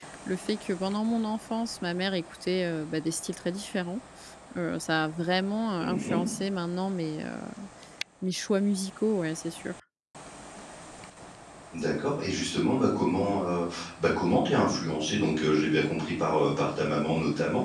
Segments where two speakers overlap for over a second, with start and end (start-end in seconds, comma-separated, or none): none